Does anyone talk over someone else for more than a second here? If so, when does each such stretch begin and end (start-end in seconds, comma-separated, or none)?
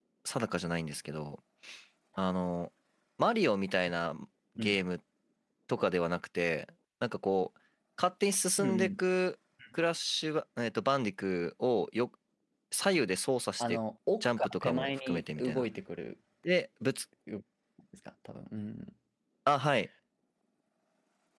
14.2-15.6